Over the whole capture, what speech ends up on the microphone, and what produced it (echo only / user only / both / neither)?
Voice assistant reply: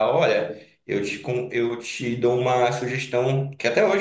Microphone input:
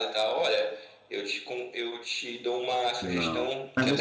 both